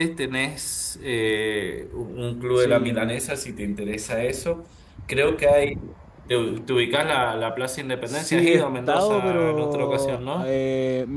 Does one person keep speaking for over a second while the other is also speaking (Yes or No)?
Yes